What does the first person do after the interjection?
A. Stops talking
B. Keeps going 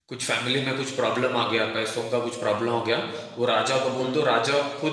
B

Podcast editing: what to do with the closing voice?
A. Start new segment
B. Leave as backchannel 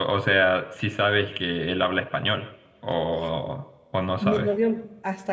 A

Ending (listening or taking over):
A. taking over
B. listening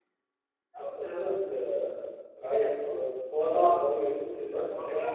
A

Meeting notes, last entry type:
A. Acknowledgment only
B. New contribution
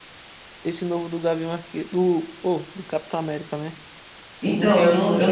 B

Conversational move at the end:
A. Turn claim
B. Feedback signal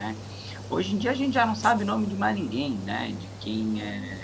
B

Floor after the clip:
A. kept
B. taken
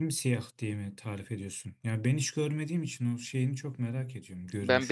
B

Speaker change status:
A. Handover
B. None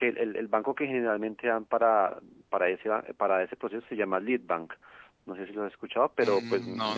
A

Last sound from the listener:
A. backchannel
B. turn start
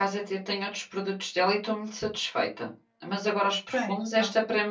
A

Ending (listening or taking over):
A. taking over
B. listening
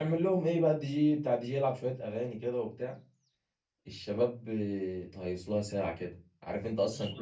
B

